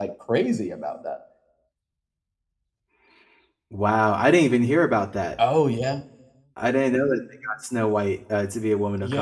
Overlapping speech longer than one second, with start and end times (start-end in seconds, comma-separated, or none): none